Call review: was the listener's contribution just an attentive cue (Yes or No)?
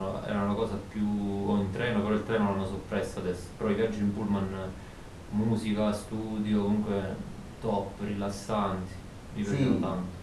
No